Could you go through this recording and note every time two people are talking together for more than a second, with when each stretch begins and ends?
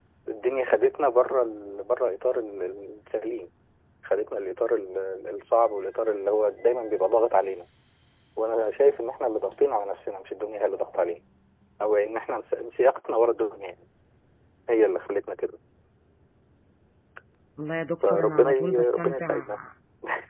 18.0-19.5

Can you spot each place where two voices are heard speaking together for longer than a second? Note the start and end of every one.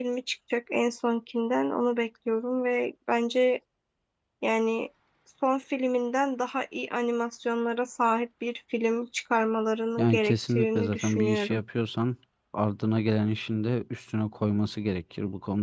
10.0-11.6

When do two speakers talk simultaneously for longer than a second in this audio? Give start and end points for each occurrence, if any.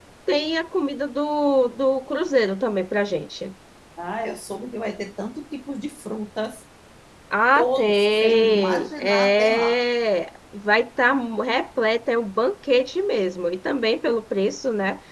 7.6-9.8

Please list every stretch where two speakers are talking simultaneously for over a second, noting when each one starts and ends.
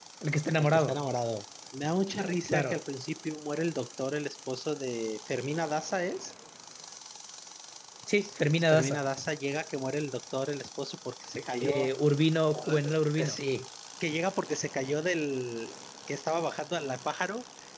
none

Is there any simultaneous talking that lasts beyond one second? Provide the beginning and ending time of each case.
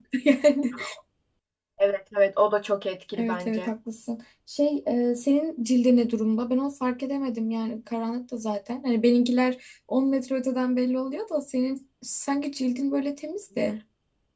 none

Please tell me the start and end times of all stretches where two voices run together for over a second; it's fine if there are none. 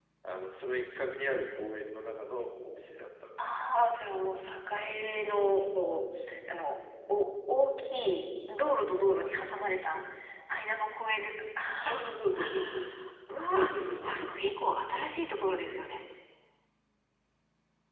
none

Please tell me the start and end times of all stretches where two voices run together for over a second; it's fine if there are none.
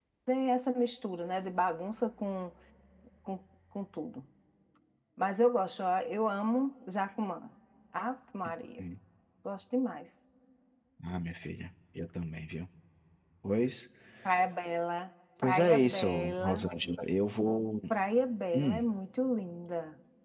15.4-16.6

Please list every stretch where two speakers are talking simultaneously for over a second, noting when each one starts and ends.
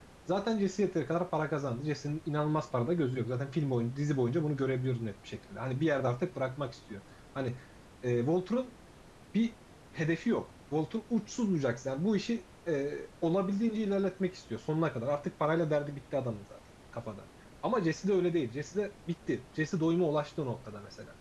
none

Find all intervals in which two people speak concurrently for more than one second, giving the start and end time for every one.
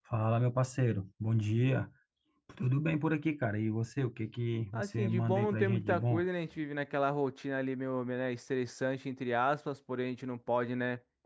4.7-6.2

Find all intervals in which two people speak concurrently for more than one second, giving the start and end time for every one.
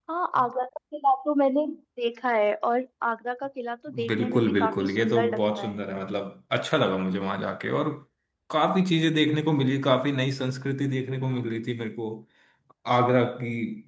4.1-5.8

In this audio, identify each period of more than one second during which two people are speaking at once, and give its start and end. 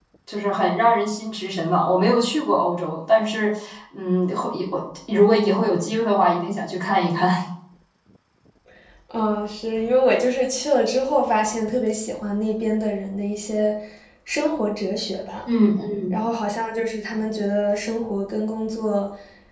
none

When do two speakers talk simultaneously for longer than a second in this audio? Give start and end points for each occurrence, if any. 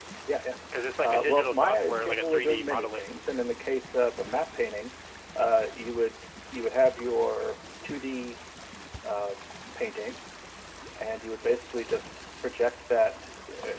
1.0-3.1

